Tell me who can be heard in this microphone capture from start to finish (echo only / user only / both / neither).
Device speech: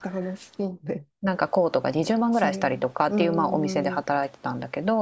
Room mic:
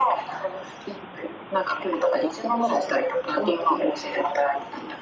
echo only